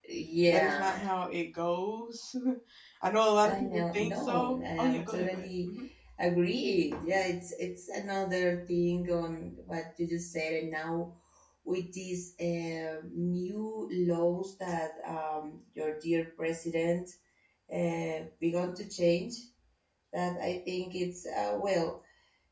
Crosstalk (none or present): present